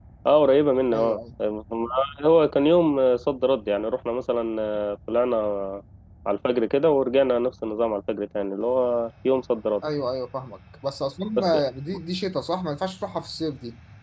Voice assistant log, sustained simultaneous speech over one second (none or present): none